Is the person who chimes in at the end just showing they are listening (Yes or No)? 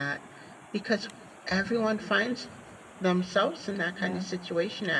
Yes